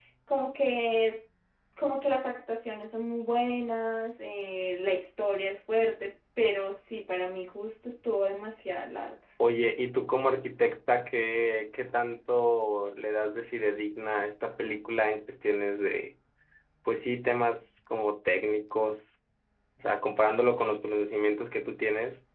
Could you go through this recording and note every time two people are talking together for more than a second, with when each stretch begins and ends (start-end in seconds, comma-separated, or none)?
none